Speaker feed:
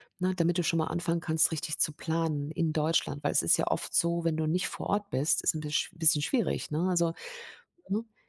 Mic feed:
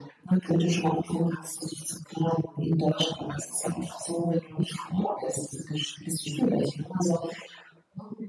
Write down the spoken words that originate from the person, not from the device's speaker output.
none

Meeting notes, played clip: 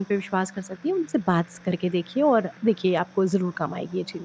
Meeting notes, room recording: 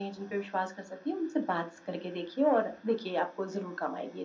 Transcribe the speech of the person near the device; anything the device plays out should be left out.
none

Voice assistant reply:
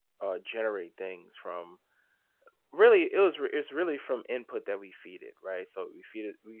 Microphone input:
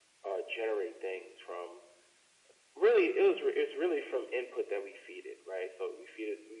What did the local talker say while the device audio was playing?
none

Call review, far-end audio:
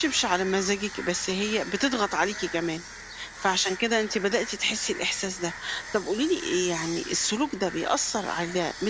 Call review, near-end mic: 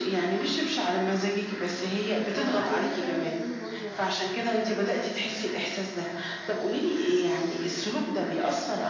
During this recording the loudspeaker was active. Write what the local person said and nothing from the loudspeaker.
فعايزين يعني يعملوا منظر أكتر فاهماني؟

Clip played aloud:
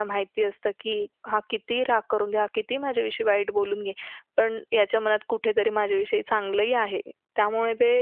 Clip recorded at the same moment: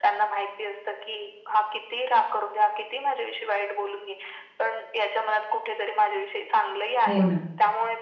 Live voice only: हो ना.

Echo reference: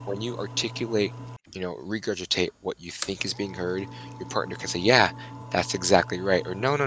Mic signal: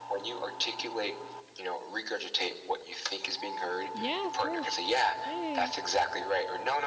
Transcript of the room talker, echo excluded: Yeah, of course. Yeah. yeah, yeah.

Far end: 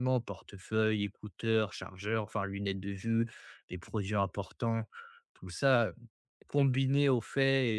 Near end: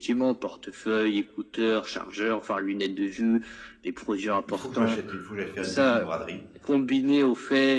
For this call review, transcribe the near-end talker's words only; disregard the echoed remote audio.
il faut que je m'achète il faut que j'aille faire une petite braderie

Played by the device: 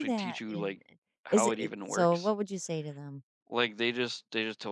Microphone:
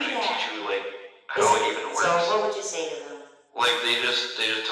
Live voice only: none

